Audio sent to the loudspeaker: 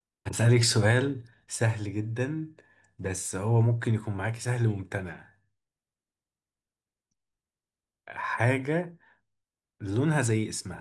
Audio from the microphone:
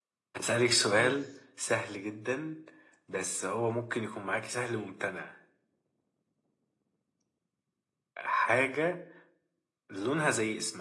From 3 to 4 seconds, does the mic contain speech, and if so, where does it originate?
echo only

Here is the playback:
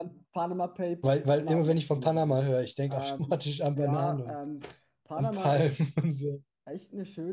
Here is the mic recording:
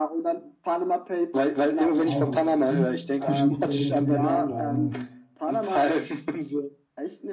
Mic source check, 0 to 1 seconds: echo only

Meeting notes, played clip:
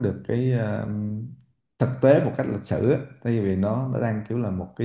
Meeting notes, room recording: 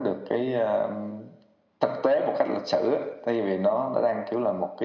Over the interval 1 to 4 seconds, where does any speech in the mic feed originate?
echo only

